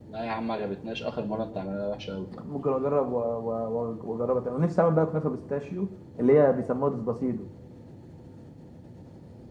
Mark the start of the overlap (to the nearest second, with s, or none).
none